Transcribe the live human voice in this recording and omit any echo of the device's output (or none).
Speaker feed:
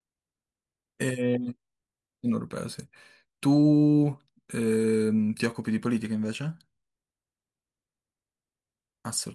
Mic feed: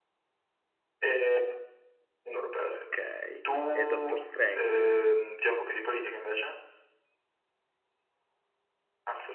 Ok, e Doctor Strange?